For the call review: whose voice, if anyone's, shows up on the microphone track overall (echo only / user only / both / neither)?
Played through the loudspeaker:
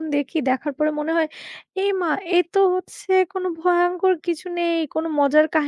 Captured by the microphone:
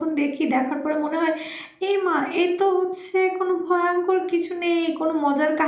echo only